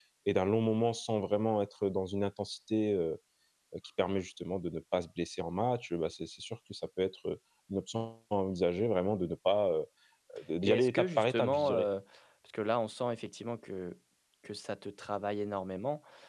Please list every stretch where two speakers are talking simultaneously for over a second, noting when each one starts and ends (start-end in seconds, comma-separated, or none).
10.6-11.9